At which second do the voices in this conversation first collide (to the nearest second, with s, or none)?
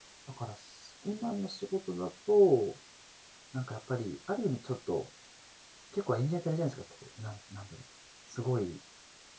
none